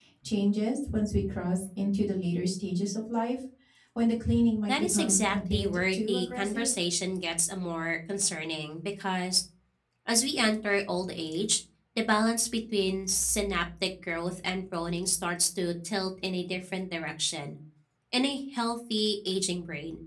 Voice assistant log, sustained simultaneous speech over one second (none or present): present